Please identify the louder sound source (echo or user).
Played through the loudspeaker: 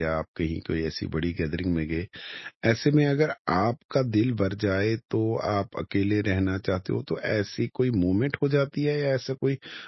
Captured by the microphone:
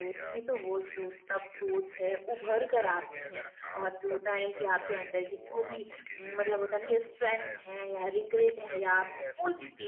user